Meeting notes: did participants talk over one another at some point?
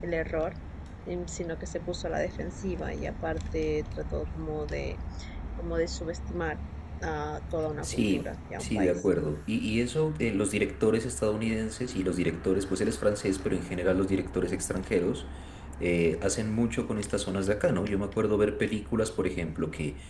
Yes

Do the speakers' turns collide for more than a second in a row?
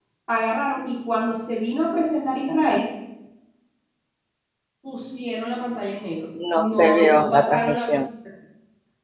Yes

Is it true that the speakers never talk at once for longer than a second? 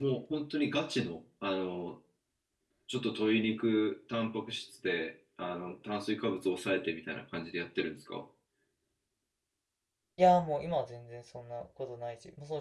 Yes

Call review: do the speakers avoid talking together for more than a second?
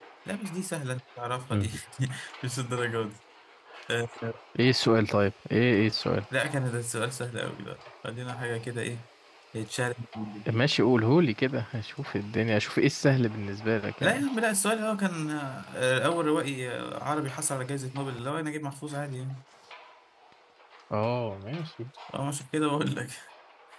Yes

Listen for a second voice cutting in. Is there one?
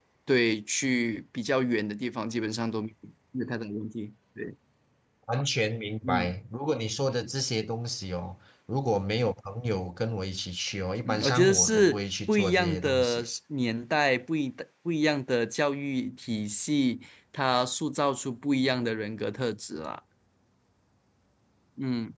Yes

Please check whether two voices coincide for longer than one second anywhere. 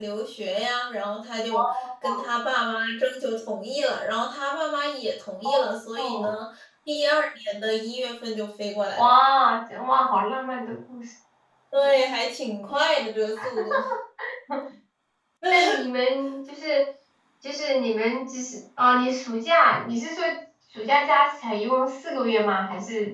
No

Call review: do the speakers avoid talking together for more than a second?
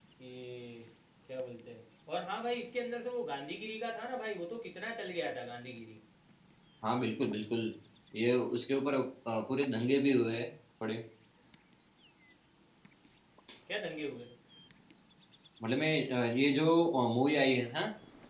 Yes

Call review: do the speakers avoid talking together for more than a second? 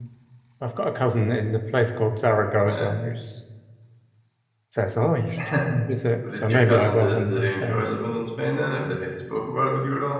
No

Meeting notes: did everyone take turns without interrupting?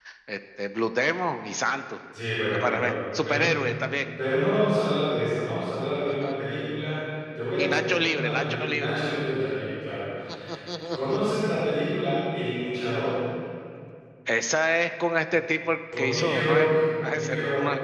No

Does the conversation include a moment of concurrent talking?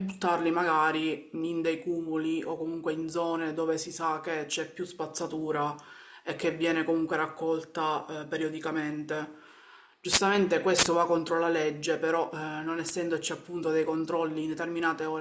No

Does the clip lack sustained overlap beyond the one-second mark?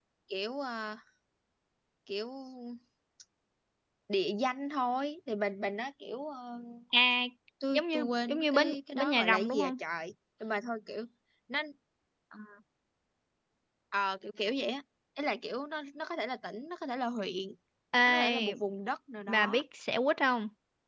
No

